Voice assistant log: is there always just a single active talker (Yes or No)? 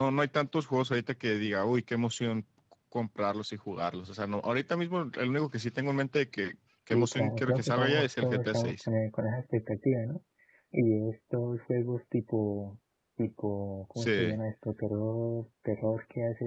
No